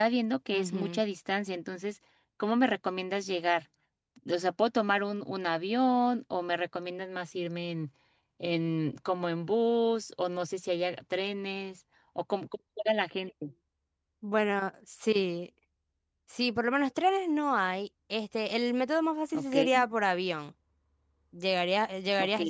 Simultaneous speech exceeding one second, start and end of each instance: none

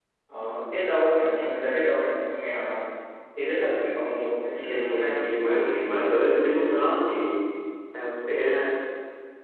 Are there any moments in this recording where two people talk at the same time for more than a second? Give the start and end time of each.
4.6-6.3

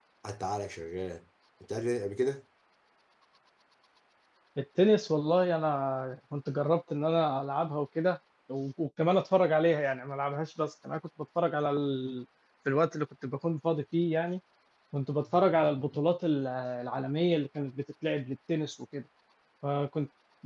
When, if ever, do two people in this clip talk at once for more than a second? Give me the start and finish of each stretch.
none

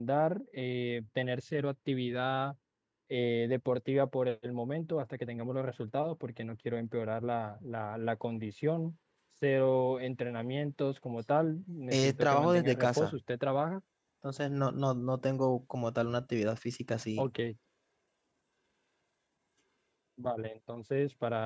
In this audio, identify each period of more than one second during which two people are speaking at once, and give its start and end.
11.9-13.1

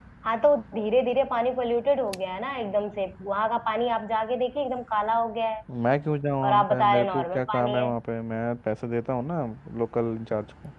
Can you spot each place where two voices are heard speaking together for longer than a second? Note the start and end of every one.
6.4-7.9

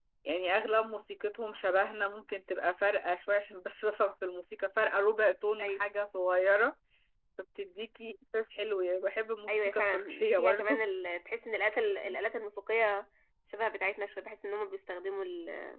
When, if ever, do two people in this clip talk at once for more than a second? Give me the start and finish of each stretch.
9.5-10.8

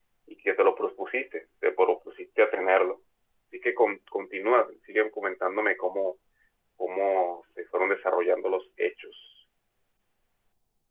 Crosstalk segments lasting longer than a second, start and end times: none

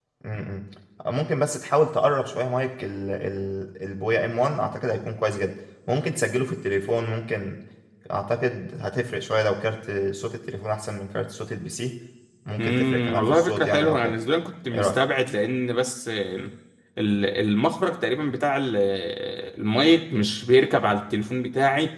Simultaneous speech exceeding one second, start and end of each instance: 12.6-14.1

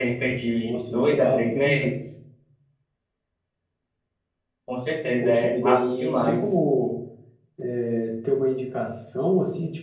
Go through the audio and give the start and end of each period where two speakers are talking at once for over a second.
0.6-1.8, 5.2-6.5

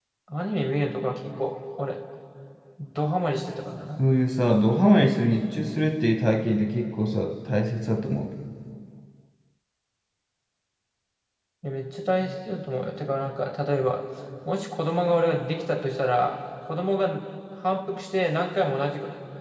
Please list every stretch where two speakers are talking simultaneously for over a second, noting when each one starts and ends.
none

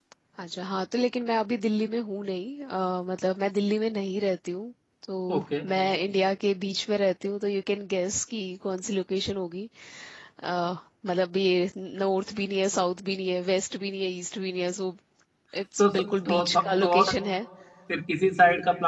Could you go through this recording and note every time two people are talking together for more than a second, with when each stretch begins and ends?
15.8-17.1

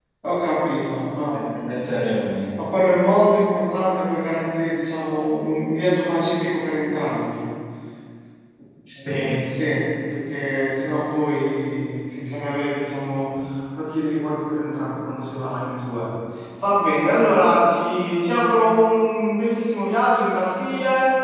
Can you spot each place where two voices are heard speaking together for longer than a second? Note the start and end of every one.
none

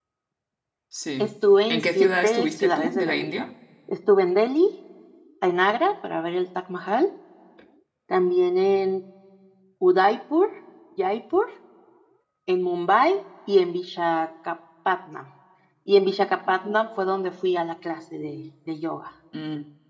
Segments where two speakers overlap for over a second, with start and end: 1.7-3.4

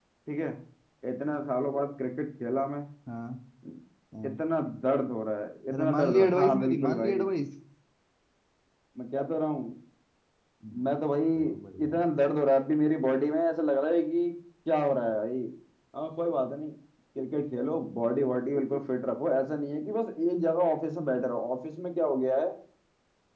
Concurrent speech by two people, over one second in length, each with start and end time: 5.7-7.2

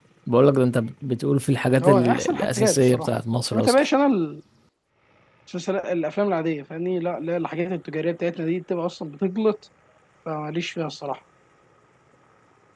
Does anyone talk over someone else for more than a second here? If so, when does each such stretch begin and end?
1.8-3.1

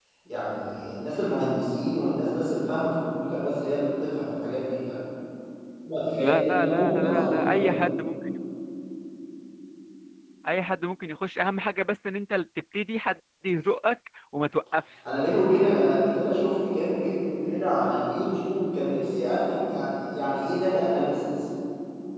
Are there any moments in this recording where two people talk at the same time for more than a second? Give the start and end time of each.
6.2-7.8

